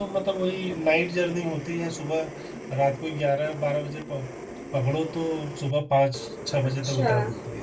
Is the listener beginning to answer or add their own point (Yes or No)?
No